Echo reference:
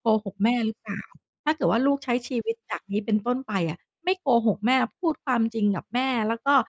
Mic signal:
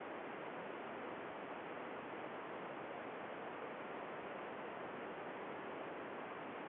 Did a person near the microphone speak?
No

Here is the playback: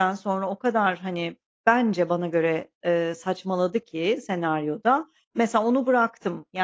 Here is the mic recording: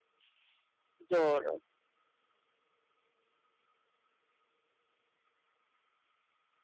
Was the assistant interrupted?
Yes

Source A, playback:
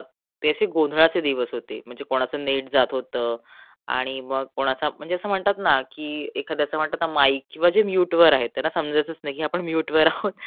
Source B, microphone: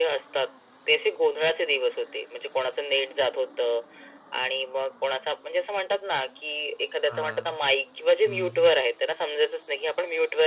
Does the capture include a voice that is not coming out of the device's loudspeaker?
Yes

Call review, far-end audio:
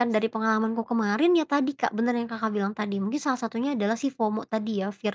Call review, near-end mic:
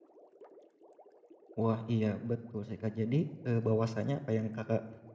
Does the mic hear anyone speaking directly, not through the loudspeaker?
Yes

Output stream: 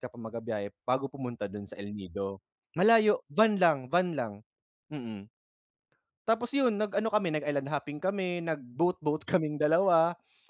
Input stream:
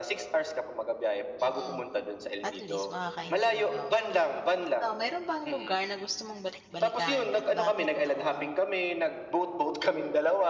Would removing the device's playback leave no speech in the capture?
No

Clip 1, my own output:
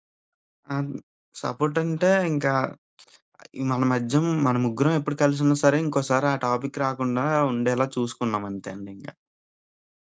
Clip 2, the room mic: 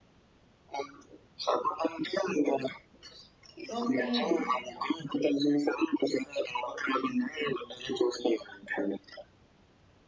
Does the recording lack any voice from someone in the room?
No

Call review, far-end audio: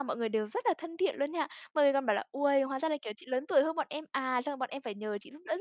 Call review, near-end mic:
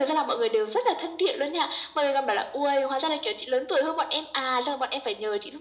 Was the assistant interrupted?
No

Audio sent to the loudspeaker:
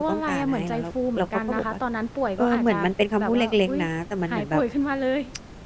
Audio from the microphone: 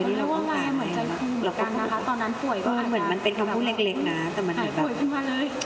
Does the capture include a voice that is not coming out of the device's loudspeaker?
No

